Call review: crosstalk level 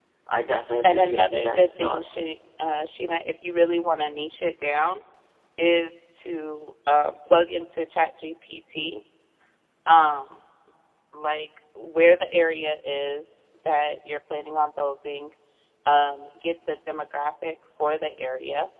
present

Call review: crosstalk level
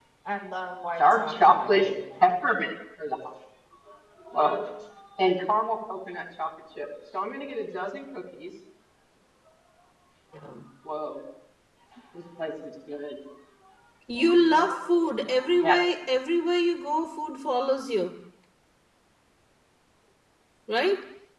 present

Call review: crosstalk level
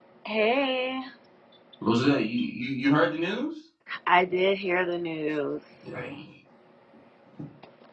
none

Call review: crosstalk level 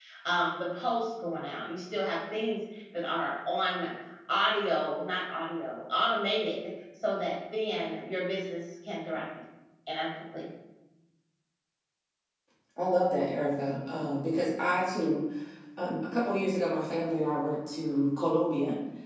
none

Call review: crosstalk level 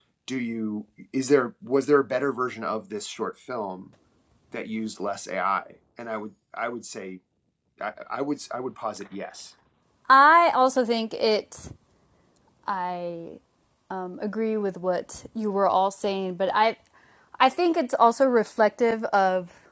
none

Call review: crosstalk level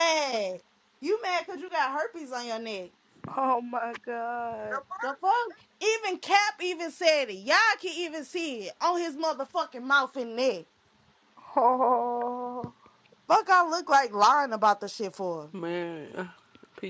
none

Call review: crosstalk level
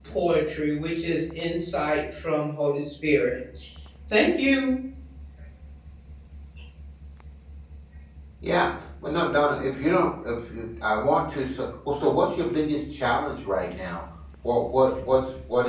none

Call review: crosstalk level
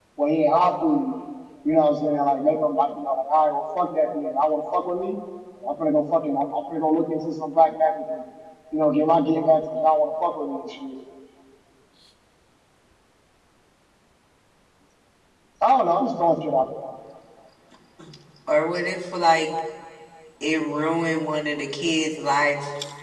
none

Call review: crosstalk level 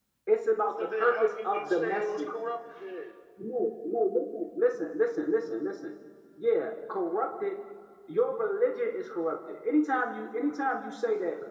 present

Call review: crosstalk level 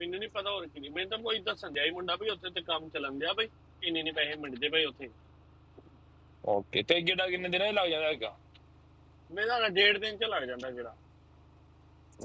none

